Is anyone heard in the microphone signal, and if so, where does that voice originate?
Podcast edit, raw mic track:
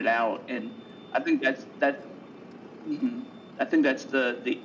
echo only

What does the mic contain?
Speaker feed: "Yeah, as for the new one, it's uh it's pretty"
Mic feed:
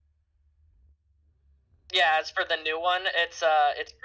echo only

